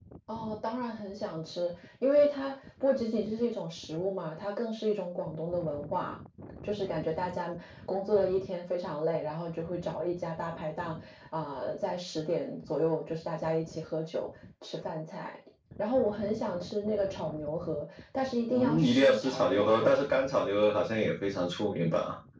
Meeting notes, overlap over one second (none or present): present